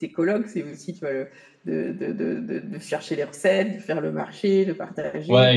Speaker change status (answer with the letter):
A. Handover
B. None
A